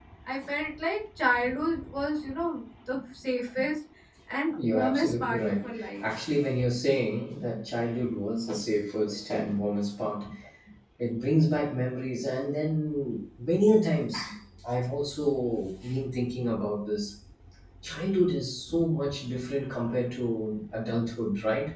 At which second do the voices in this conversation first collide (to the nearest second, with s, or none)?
5 s